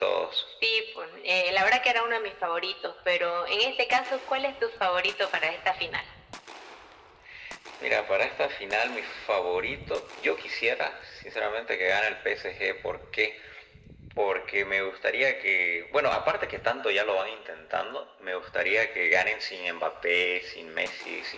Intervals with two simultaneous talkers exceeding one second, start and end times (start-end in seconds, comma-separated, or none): none